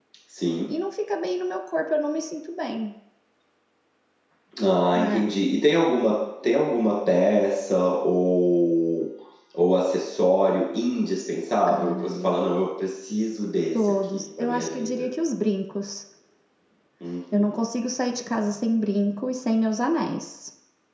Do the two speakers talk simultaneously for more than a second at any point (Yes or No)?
Yes